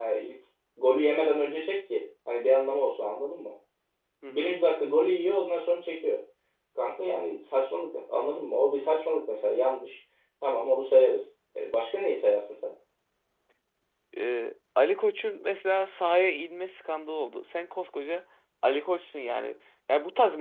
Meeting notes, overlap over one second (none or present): none